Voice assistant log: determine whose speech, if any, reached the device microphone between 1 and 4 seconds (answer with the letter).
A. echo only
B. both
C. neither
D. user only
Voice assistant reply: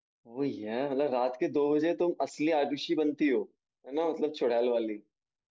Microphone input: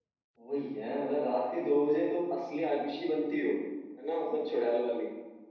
A